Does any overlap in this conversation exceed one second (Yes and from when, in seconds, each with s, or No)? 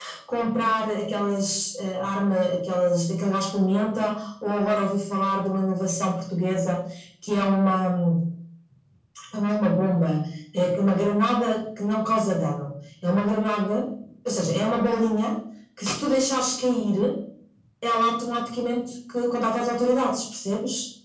No